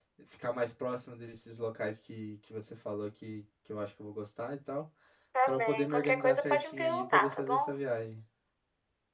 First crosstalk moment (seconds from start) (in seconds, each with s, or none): 5.5 s